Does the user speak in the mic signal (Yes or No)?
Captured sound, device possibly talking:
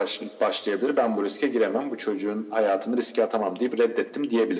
No